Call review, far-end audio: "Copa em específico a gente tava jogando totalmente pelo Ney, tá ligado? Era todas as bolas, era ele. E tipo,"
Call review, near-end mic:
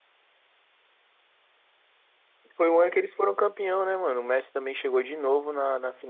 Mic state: user only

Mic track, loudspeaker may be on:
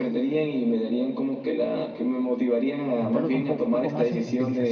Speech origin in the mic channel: both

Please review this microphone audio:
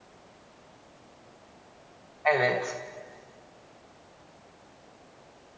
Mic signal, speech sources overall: user only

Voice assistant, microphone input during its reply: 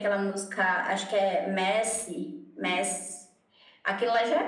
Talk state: echo only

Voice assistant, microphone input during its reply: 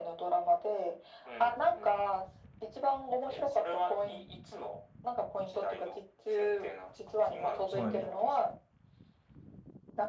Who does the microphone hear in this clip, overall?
both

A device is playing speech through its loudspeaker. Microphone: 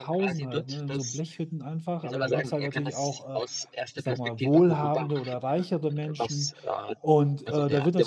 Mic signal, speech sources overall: both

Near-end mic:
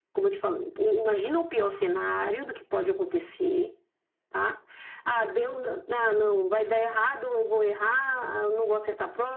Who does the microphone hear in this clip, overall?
echo only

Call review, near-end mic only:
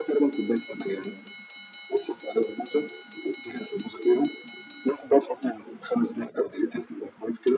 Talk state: echo only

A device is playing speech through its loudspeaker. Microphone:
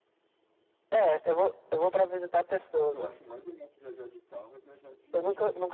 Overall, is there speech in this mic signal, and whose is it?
both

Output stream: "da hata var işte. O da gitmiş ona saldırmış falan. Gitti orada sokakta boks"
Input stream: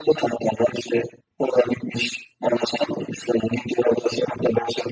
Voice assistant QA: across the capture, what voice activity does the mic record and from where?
echo only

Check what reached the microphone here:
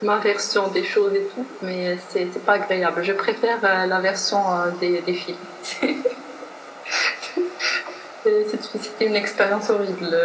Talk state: echo only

